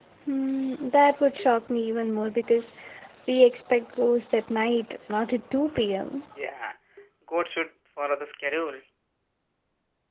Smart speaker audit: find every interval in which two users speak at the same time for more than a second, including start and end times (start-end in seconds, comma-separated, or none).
none